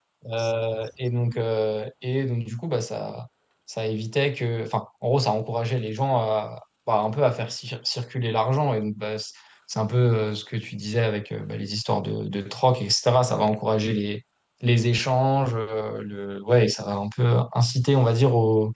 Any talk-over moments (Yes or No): No